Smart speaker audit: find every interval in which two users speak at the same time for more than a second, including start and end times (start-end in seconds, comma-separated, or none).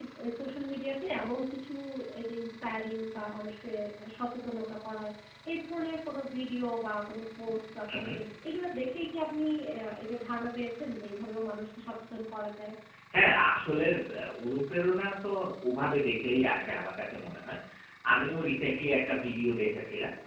none